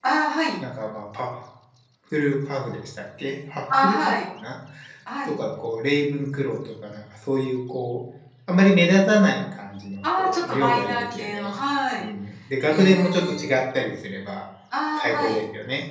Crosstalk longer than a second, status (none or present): present